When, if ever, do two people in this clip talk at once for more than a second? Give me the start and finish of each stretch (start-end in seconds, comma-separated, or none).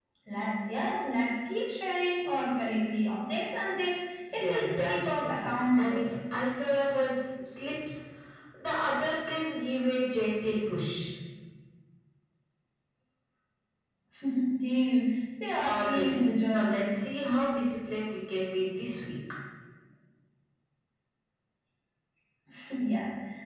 4.3-6.1, 15.6-16.8